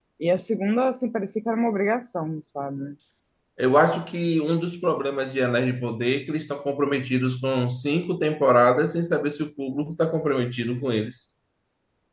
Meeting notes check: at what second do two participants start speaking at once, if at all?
none

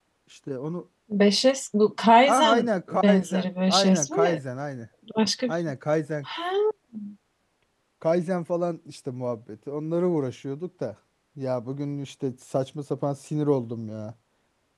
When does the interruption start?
2.3 s

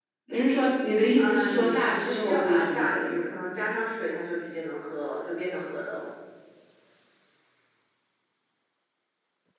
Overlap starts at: 1.2 s

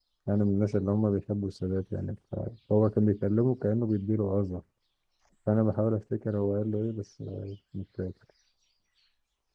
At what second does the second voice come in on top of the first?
none

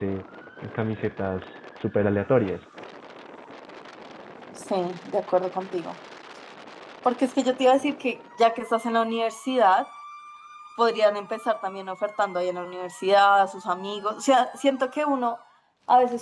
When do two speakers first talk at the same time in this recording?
none

